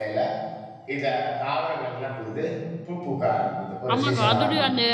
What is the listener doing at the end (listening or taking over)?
taking over